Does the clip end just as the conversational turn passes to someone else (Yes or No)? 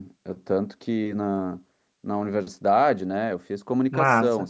No